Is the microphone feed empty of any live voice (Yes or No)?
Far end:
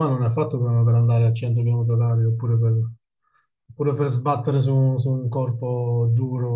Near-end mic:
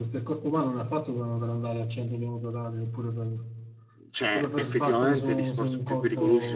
No